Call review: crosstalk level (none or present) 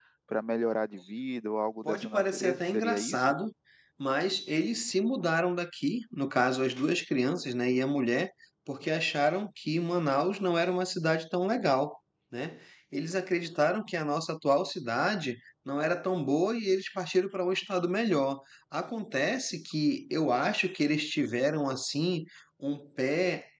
present